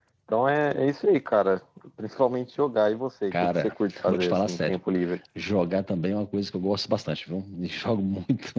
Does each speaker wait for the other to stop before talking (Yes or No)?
No